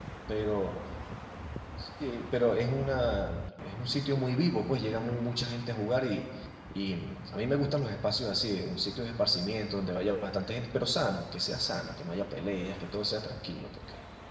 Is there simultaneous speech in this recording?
No

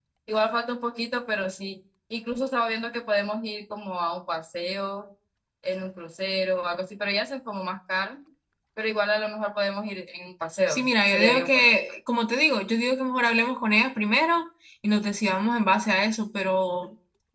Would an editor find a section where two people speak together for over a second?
Yes, from 10.7 s

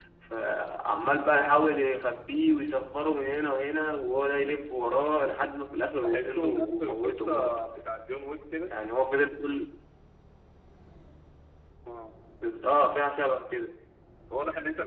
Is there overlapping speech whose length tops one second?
Yes, from 6.0 s

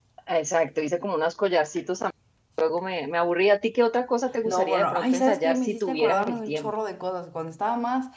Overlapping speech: Yes, from 4.5 s

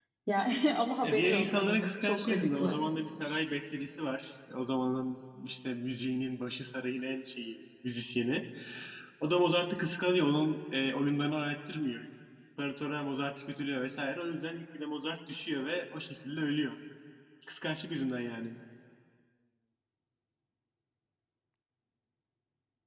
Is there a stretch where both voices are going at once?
Yes, from 1.0 s

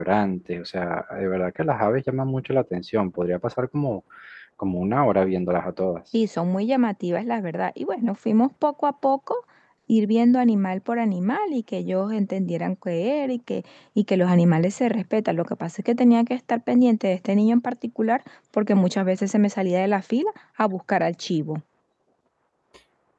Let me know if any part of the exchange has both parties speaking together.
No

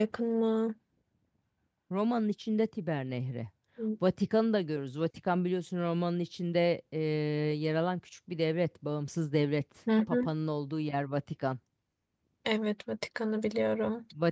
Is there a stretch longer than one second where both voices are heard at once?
No

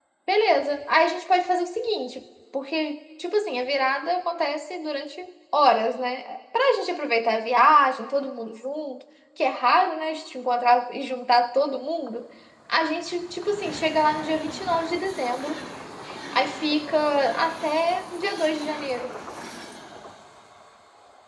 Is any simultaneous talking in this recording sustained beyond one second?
No

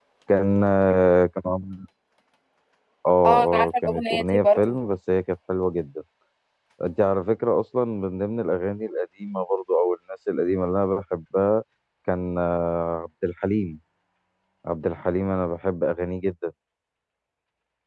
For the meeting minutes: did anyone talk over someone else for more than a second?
Yes, from 3.2 s

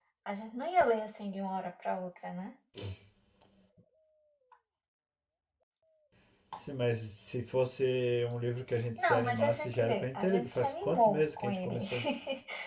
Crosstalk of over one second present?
Yes, from 9.0 s

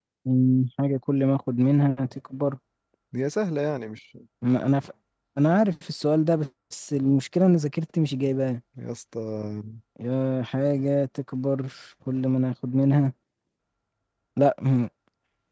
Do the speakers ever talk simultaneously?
No

